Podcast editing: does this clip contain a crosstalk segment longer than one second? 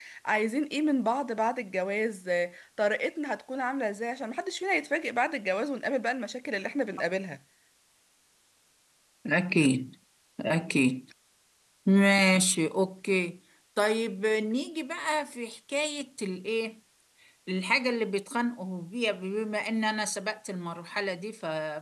No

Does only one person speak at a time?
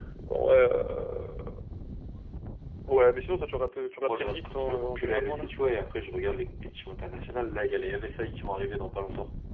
No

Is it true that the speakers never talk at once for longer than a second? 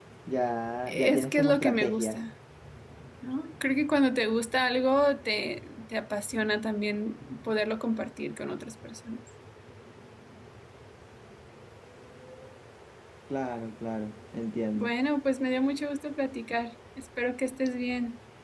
No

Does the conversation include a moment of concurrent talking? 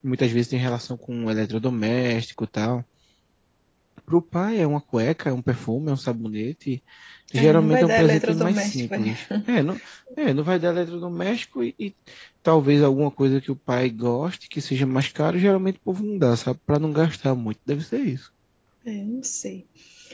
Yes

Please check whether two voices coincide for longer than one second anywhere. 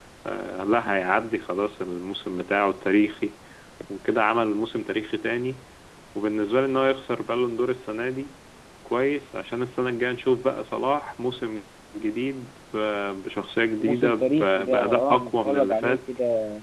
Yes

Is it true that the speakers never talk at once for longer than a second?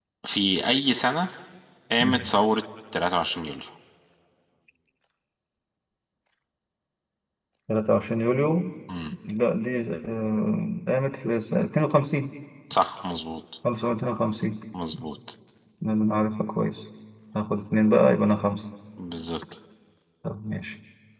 Yes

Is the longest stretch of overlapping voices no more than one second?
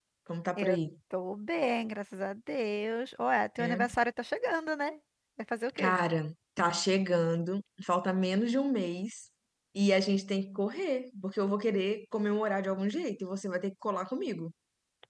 Yes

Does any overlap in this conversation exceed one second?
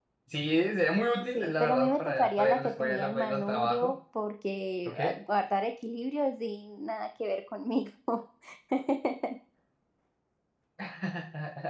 Yes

